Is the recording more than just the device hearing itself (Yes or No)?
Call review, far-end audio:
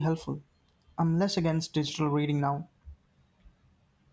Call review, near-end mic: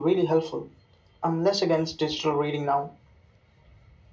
No